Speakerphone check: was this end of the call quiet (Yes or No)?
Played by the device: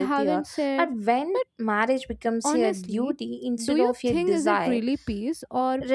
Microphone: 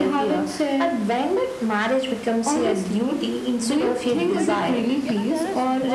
No